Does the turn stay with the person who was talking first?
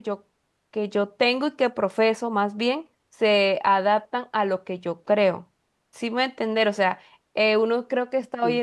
Yes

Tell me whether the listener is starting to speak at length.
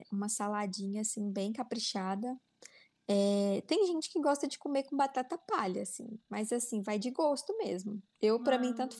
No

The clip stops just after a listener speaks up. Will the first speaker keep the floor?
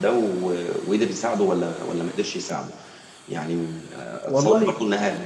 Yes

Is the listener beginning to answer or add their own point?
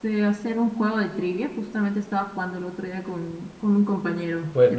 Yes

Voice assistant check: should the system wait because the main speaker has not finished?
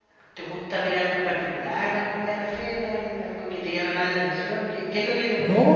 No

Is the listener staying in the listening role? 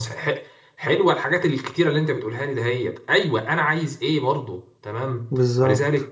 Yes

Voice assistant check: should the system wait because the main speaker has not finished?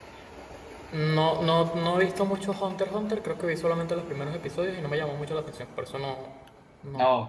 No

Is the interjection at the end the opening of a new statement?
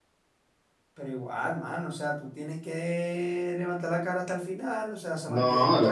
Yes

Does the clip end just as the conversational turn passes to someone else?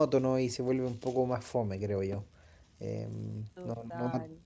No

